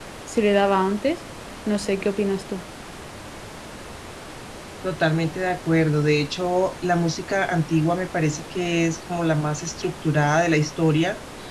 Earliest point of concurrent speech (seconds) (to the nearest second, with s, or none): none